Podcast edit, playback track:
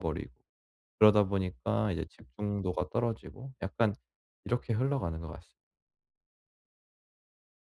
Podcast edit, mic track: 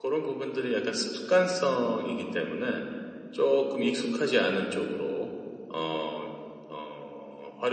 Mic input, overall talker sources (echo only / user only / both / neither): user only